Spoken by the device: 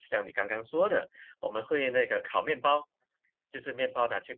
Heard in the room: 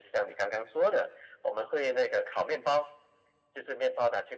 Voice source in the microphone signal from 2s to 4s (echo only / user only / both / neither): echo only